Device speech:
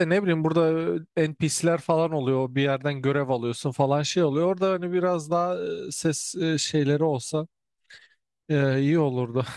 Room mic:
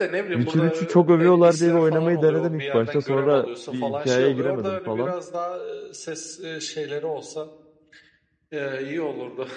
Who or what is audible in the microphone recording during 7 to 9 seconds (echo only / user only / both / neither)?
echo only